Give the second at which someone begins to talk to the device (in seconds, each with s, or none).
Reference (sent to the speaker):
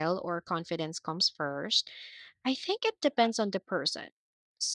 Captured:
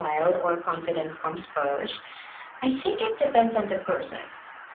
none